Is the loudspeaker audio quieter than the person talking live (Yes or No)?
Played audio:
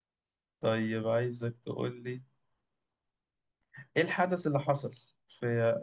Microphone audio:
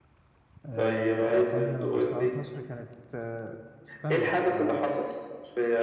No